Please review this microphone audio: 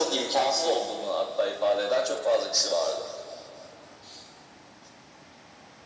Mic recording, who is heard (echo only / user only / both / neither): echo only